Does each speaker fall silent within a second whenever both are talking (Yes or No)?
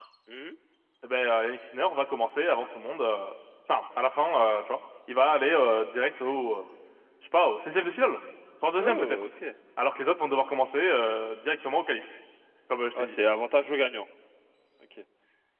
Yes